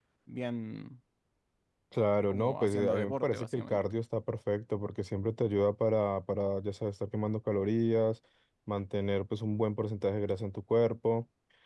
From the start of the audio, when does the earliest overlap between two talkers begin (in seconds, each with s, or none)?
2.3 s